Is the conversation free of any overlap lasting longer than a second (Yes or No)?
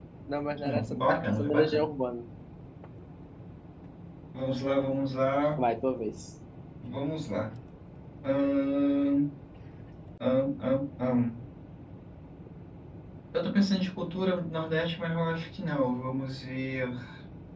No